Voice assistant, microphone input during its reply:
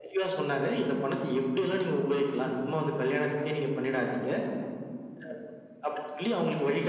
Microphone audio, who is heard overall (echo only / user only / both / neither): echo only